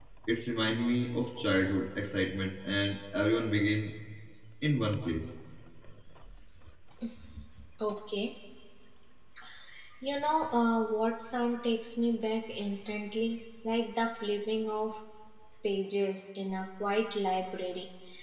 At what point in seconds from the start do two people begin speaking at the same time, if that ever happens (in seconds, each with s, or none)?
none